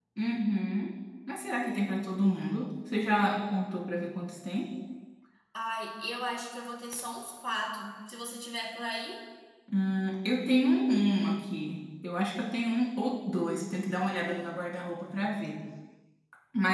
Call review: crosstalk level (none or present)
none